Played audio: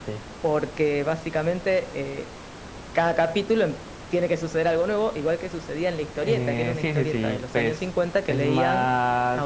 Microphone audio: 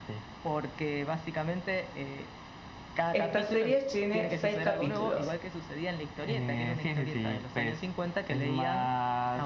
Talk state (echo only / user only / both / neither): both